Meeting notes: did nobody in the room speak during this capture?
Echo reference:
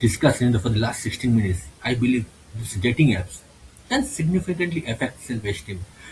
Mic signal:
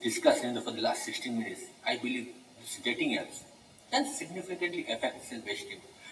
Yes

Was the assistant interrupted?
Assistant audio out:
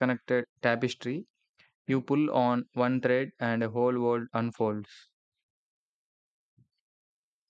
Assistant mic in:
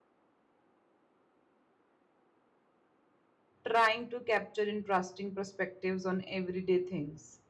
Yes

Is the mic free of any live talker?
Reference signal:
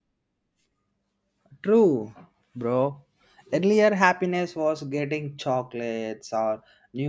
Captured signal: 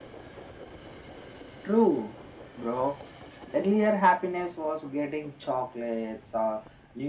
Yes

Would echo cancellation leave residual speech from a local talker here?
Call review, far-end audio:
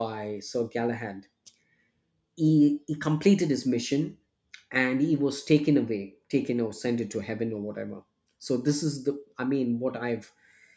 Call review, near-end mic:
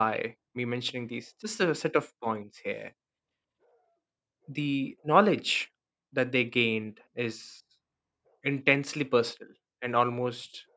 Yes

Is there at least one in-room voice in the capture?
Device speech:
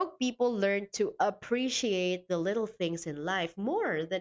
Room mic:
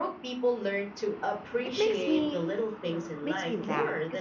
Yes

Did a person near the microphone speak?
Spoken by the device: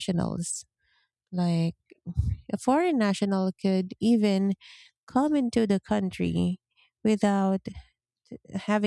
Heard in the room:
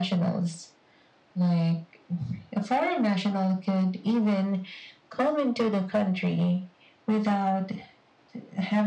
No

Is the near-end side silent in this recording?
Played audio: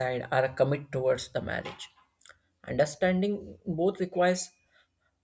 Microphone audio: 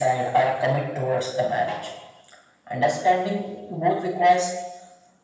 Yes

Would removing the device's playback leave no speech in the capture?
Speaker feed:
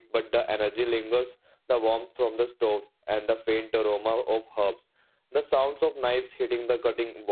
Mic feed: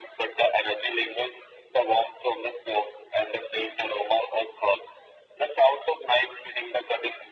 Yes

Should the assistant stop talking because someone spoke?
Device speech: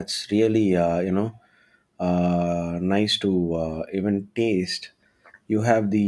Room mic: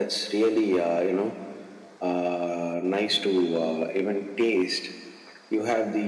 No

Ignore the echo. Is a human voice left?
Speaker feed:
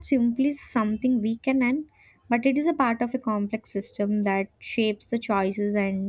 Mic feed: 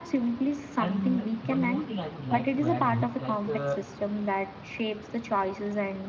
Yes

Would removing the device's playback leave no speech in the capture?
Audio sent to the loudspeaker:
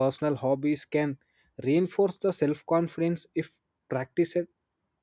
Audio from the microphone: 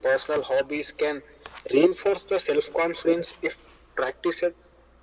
Yes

